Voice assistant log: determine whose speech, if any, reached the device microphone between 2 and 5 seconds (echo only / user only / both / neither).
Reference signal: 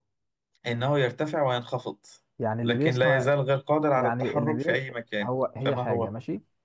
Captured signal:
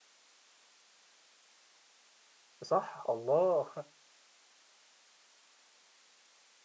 user only